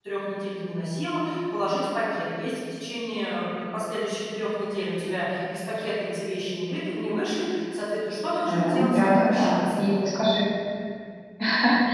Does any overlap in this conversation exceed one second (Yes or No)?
Yes